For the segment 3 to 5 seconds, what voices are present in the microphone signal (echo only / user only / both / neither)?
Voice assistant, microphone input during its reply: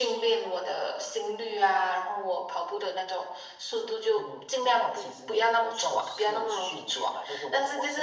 echo only